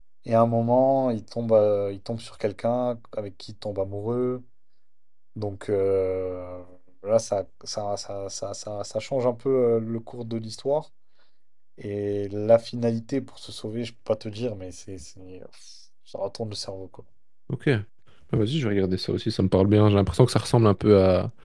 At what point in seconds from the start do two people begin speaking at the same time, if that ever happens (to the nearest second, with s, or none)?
none